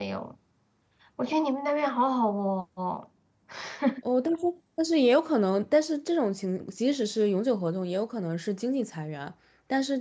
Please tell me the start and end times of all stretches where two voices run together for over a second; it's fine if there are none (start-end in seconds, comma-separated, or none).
none